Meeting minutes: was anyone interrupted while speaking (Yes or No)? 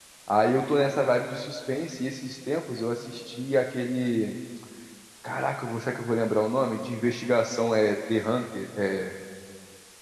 No